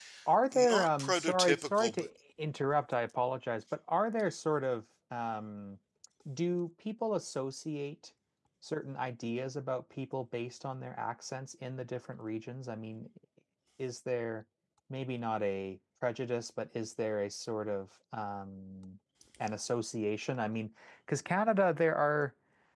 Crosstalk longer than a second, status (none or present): present